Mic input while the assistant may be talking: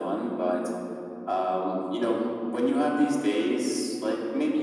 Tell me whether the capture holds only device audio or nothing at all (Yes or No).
Yes